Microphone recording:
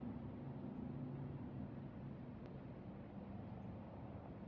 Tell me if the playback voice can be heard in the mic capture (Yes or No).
No